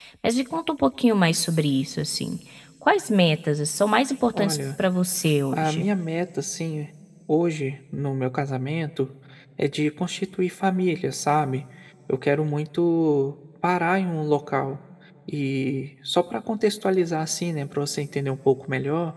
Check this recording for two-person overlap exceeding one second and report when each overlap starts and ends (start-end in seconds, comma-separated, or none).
none